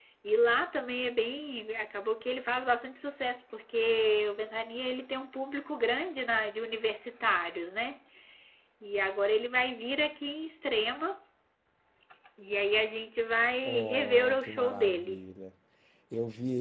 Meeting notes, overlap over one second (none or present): present